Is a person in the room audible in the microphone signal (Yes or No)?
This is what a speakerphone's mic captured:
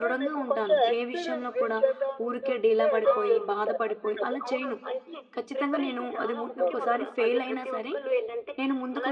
Yes